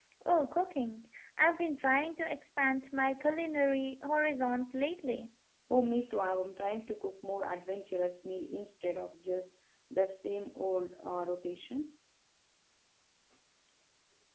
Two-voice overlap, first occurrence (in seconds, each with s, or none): none